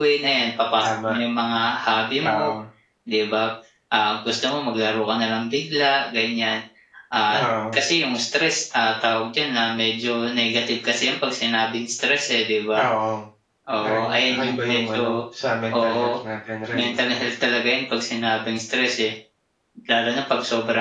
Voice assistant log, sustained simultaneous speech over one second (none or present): present